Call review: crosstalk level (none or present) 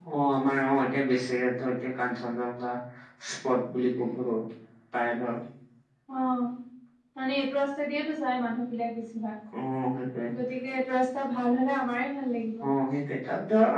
none